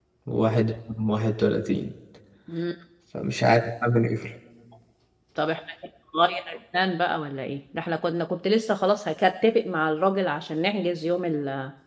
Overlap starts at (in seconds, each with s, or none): none